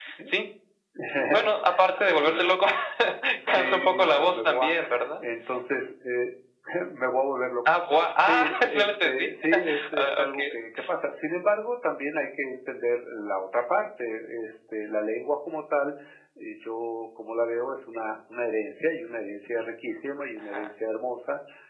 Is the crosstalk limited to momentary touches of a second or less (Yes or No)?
No